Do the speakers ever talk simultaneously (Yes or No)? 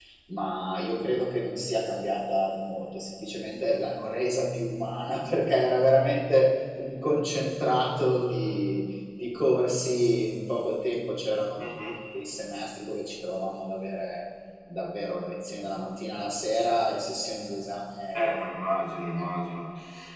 No